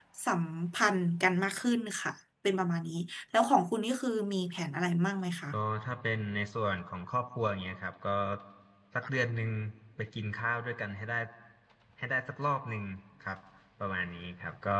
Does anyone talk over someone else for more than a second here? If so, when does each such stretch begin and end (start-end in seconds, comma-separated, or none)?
none